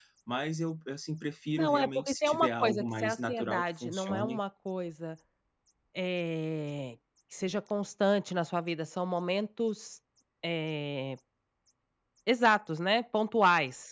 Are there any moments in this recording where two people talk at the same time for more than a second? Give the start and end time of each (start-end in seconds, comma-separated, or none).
1.6-4.4